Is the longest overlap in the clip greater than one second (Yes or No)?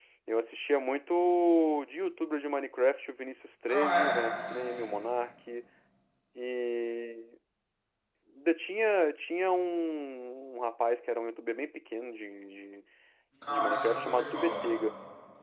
Yes